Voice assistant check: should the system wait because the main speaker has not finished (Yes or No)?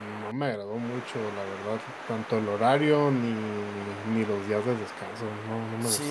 No